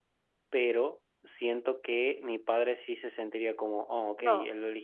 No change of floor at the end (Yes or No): No